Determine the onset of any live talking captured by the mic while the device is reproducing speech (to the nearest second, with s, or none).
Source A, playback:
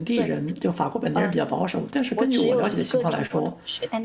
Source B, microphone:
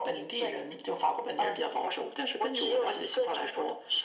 none